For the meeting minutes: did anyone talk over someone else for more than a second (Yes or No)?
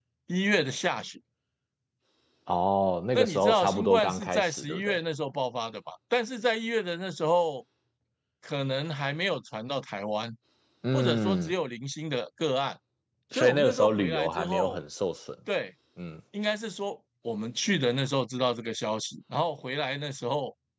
Yes